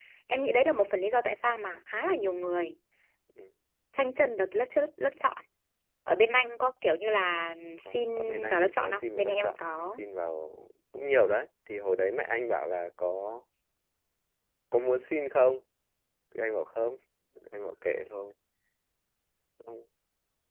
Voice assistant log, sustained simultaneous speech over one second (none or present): present